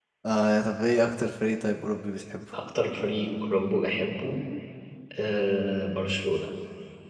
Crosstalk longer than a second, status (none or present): none